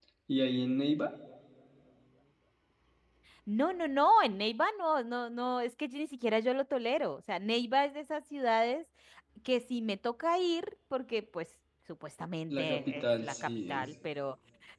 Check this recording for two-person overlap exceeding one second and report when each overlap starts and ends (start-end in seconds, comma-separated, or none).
12.5-13.9